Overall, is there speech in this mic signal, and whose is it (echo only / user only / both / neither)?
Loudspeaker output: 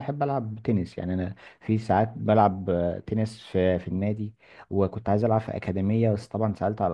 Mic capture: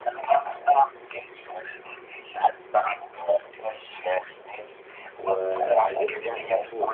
both